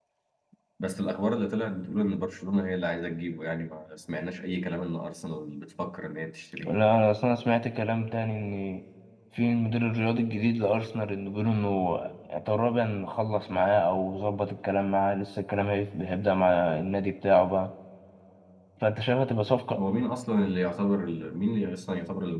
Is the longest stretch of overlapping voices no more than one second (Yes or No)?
Yes